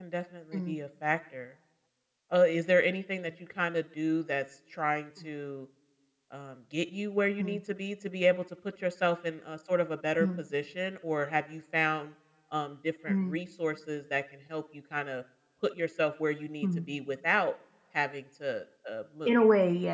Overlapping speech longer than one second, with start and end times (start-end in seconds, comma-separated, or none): none